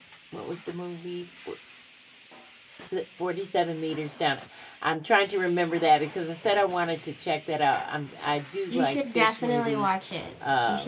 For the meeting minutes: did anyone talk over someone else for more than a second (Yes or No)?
Yes